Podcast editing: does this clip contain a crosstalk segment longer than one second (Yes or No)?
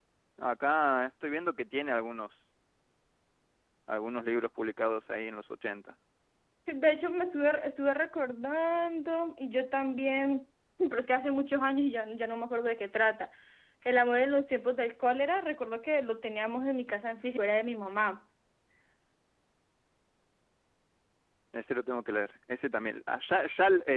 No